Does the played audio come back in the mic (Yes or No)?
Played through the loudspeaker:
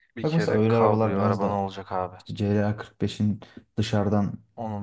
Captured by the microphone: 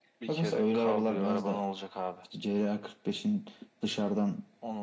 Yes